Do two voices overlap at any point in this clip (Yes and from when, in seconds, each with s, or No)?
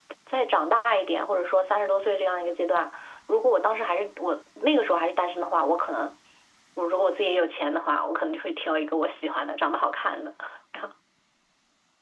No